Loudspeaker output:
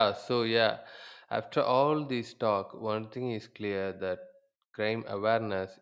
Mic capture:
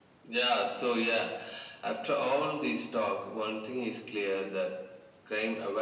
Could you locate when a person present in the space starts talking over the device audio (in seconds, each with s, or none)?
none